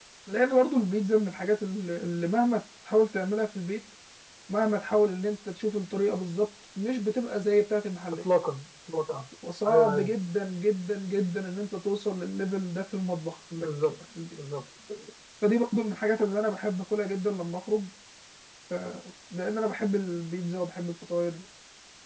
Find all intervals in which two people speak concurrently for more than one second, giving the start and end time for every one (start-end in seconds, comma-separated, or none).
none